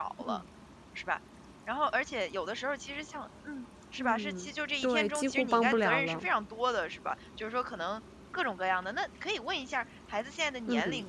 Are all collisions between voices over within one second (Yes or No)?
No